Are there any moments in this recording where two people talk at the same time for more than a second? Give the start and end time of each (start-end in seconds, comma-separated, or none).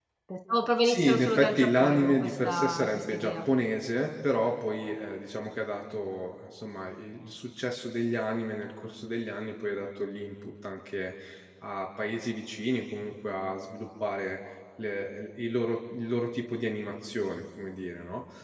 0.8-3.4